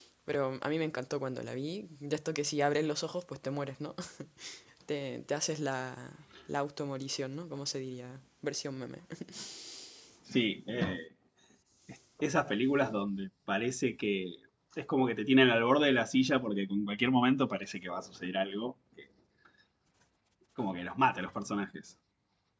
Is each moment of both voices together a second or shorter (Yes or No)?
Yes